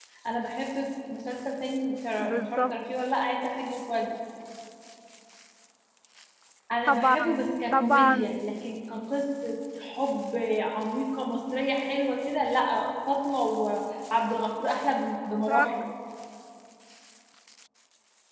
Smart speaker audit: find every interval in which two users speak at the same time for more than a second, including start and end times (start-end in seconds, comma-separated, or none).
6.8-8.4